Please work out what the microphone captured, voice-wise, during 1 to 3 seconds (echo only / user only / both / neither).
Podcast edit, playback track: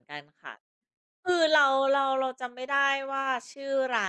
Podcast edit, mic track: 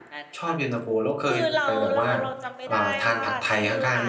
both